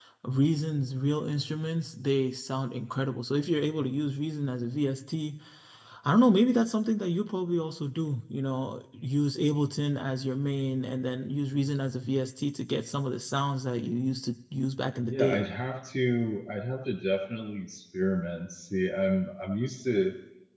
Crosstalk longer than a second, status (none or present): none